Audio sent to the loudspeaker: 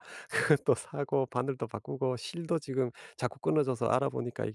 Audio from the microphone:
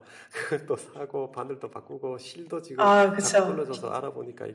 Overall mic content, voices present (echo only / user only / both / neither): both